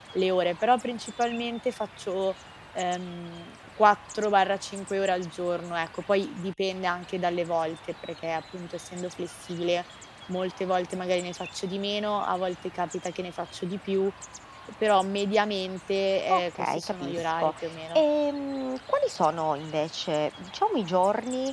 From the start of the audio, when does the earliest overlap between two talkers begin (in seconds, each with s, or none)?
16.3 s